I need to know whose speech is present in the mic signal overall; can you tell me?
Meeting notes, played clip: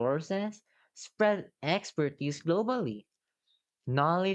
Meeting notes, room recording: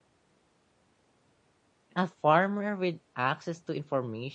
user only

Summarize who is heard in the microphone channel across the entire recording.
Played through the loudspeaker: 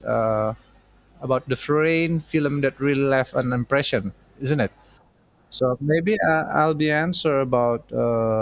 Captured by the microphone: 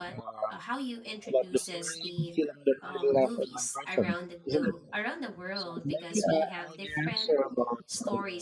both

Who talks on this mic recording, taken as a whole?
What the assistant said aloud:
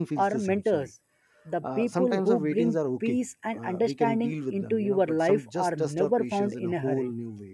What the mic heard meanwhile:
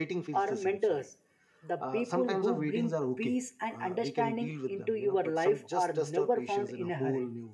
echo only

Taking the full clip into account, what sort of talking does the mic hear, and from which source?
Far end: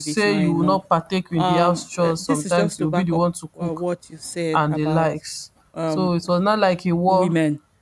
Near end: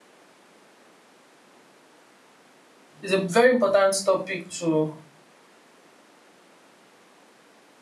user only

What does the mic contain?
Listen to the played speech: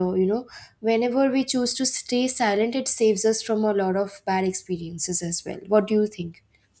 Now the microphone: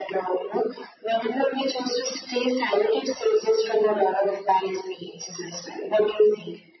echo only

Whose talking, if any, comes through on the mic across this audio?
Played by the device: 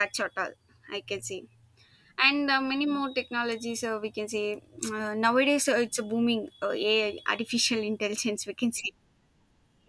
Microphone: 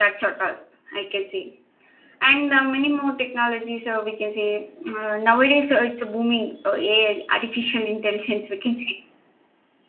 echo only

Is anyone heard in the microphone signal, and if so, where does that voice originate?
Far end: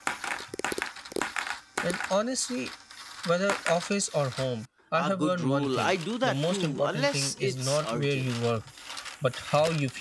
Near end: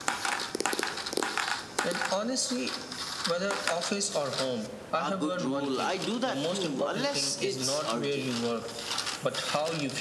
echo only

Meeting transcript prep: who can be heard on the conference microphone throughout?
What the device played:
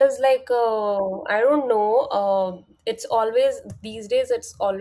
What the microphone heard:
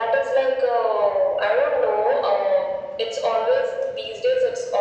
echo only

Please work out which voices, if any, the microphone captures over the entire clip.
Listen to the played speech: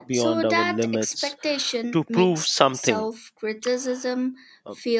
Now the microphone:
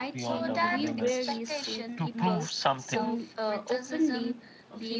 both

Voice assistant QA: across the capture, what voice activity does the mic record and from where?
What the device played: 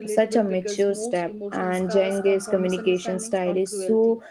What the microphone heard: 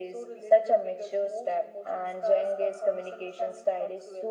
echo only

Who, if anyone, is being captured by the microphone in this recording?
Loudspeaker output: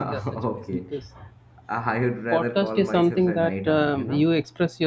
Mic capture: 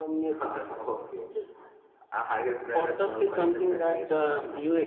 echo only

